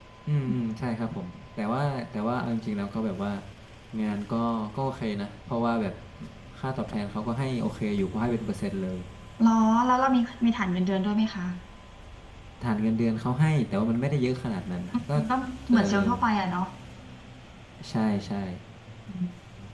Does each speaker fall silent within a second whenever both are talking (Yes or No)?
Yes